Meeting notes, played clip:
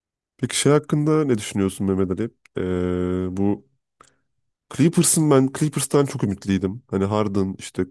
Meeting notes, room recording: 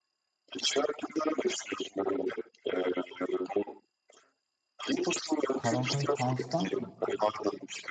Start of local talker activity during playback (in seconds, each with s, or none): 5.6 s